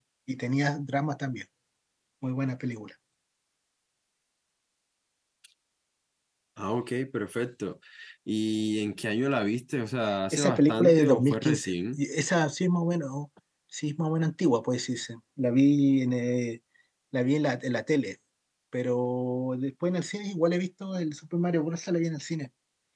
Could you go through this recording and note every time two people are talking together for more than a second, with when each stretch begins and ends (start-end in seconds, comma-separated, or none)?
10.3-12.0